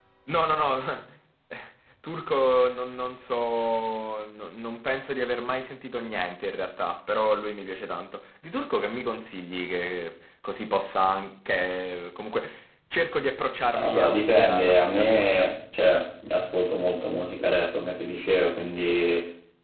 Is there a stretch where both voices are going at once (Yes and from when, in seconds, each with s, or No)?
Yes, from 13.7 s